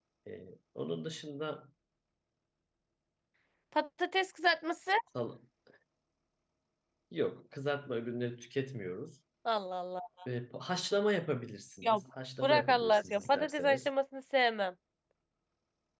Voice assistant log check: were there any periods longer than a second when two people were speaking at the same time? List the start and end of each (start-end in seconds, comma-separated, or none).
12.4-13.9